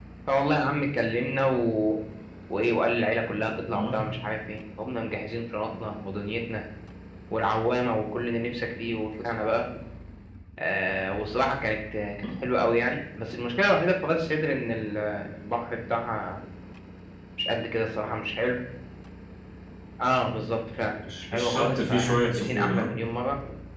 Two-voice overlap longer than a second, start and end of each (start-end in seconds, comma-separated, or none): 21.2-23.0